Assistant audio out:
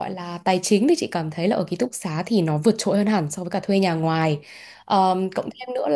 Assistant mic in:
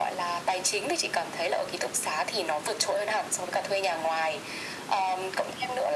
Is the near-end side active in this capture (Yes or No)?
No